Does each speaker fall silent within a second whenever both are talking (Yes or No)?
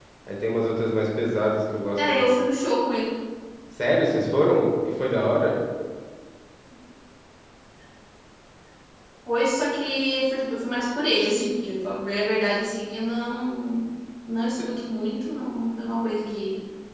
Yes